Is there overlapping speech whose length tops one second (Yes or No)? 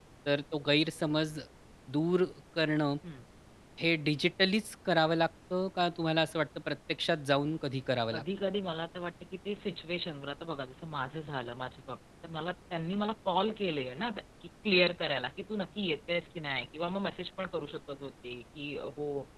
No